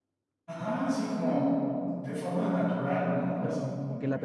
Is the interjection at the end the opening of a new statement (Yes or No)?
Yes